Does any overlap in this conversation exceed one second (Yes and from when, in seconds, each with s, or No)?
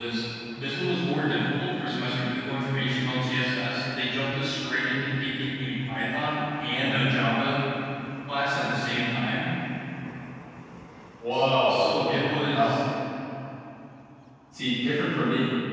Yes, from 11.3 s